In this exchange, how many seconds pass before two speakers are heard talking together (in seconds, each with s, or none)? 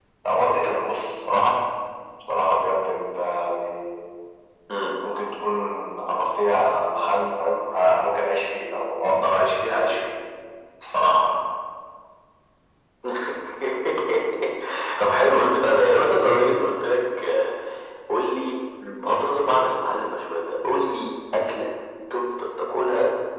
none